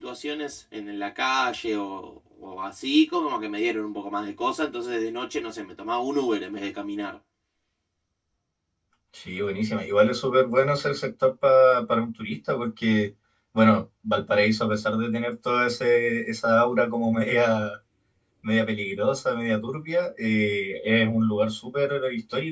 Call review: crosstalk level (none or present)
none